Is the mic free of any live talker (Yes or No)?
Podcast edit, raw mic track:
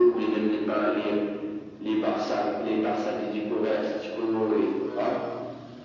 No